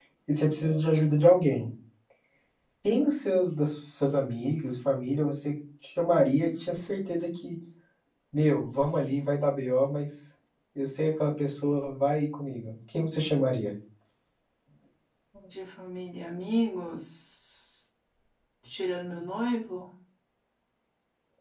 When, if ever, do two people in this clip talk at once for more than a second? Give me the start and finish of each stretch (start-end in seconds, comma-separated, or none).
none